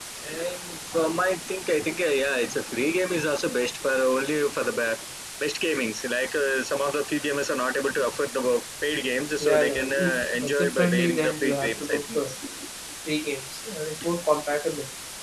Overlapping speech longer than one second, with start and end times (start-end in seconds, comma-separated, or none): 9.4-12.2